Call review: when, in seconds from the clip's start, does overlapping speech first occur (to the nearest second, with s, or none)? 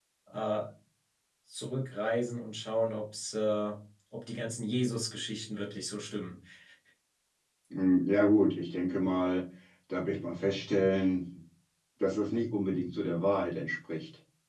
none